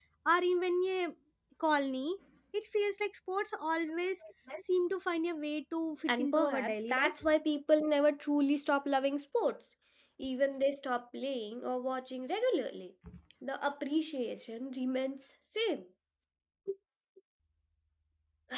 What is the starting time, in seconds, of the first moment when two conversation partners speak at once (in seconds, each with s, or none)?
6.1 s